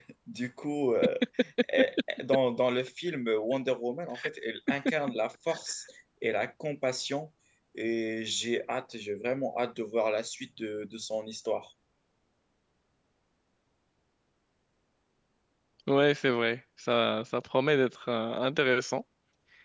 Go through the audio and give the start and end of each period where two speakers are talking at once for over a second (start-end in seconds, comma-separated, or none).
none